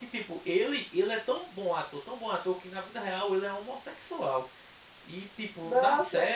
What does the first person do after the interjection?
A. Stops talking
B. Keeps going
B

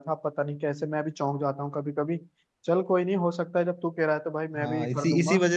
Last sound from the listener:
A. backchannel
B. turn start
B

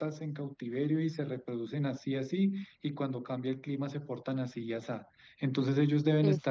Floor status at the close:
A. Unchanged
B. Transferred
A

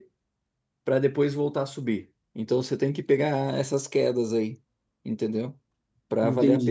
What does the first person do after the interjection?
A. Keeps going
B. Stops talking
B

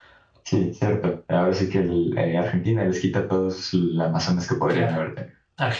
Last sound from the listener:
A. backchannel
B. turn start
B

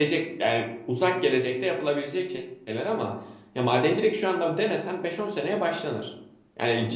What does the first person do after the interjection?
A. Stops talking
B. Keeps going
B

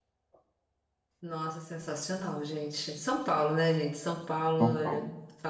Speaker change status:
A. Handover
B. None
B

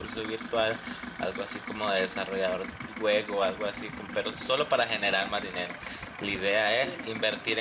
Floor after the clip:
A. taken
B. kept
B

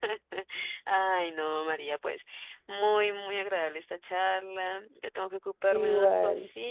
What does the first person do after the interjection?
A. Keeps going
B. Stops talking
A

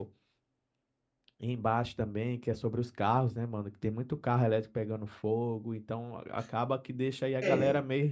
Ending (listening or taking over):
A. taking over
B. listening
B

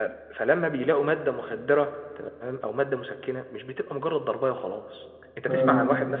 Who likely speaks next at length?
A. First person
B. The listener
A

